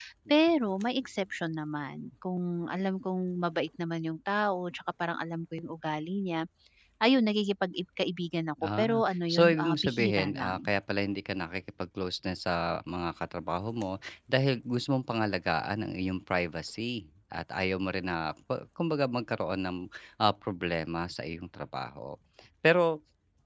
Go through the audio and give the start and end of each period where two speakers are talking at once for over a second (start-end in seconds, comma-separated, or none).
8.8-10.7